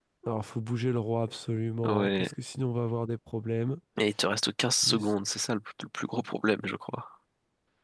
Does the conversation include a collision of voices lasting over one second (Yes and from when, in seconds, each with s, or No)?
No